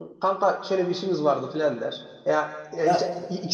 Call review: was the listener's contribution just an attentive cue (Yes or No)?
Yes